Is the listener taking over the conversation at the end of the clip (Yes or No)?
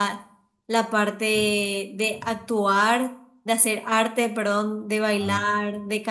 No